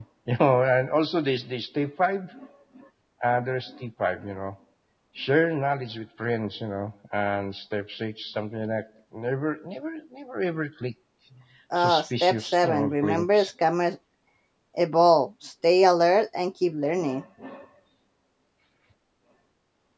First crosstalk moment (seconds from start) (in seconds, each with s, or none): 11.8 s